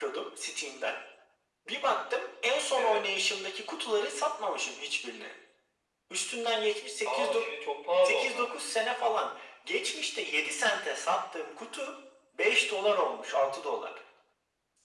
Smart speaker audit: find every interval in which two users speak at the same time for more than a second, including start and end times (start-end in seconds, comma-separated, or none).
none